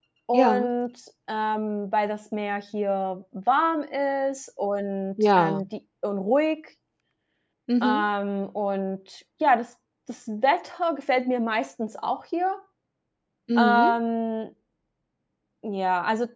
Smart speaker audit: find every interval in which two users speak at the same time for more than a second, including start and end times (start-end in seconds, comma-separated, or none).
none